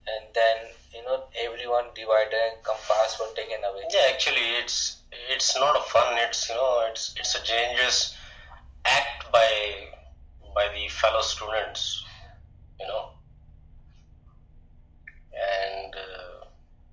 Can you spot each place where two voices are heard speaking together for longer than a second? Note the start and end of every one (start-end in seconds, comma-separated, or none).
none